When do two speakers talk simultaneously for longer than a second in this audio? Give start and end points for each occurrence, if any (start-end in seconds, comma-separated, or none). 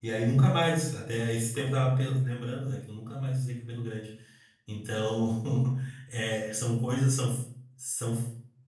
none